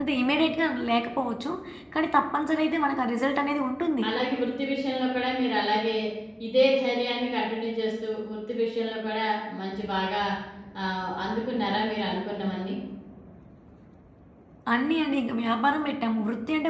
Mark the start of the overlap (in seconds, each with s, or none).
none